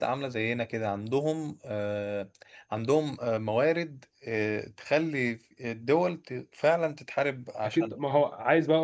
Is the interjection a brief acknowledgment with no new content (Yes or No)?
No